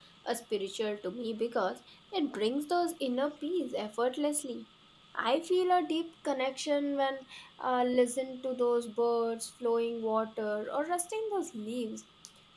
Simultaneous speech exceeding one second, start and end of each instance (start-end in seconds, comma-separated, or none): none